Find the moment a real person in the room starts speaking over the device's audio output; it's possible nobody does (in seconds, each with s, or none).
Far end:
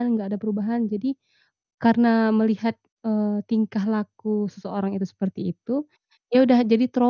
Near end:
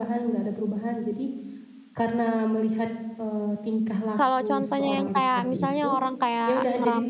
4.2 s